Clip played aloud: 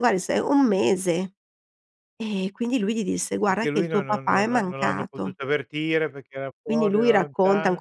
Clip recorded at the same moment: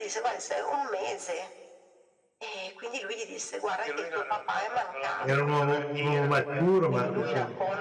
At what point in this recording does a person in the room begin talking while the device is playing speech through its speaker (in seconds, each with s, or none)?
5.2 s